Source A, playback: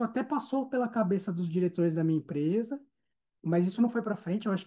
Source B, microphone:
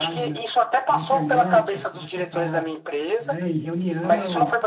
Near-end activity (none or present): present